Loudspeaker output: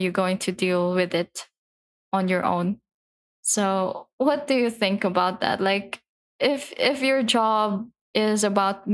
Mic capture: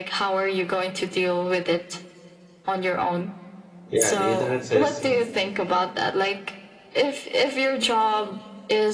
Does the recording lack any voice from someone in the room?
No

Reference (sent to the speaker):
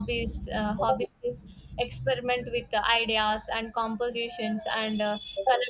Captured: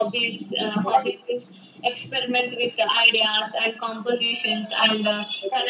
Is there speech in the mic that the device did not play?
No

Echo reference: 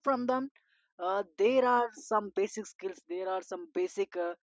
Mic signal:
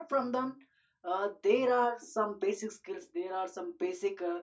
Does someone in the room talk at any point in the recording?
No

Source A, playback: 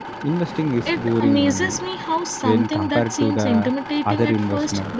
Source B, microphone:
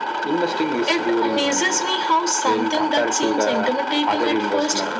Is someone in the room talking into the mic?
No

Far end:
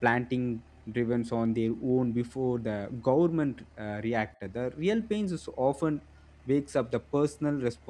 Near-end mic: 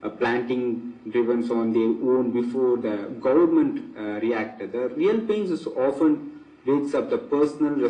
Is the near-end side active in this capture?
No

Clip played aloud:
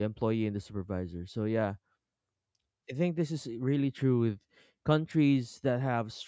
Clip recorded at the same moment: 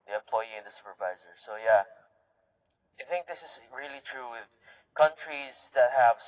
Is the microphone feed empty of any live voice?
Yes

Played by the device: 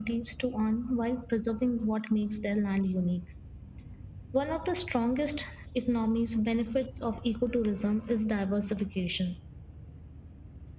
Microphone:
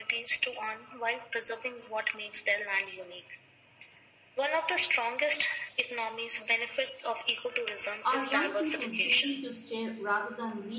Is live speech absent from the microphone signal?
No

